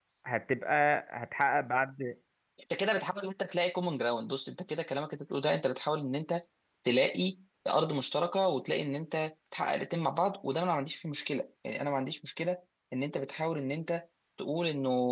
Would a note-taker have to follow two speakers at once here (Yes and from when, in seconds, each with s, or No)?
No